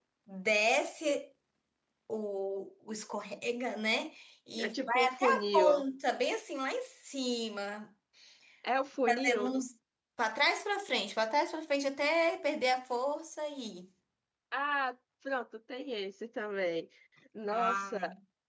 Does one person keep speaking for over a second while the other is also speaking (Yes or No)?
Yes